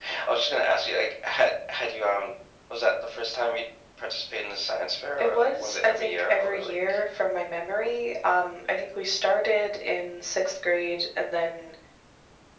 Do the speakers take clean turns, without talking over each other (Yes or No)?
No